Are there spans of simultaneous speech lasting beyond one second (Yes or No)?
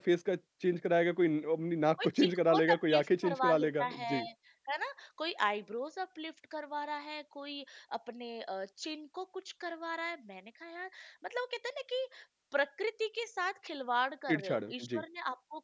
Yes